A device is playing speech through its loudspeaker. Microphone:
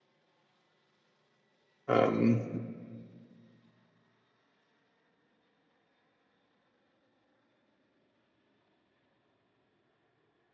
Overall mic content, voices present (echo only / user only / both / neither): user only